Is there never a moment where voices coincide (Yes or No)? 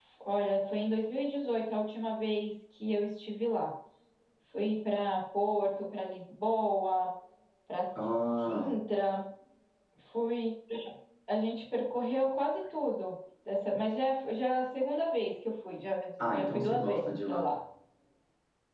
No